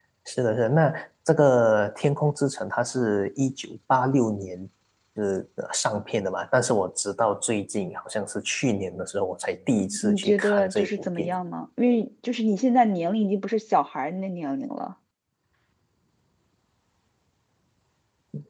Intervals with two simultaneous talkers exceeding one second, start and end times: 10.0-11.4

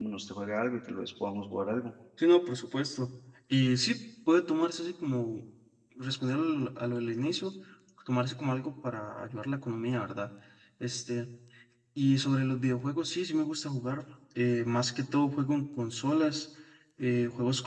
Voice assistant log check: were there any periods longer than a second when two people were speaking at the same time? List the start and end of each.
none

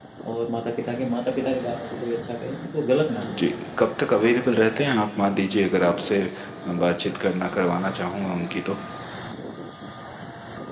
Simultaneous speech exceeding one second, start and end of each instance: none

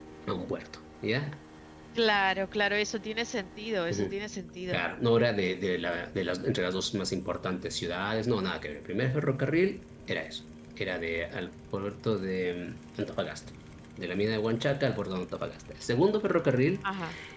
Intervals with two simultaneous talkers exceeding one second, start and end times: none

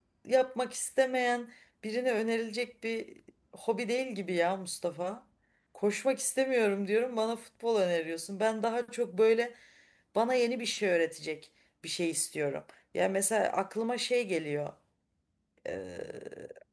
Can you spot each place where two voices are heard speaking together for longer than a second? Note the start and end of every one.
none

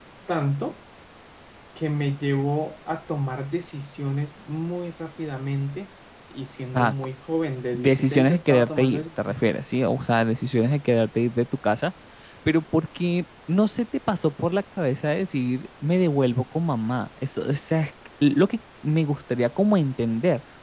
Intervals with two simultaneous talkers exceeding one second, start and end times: 7.7-9.5

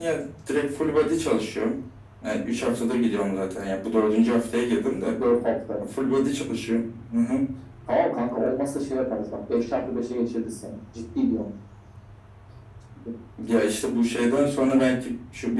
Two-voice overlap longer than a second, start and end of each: none

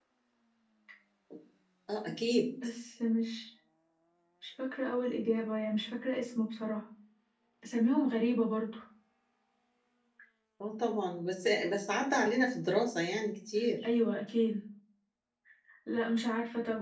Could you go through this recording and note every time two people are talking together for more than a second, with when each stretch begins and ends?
none

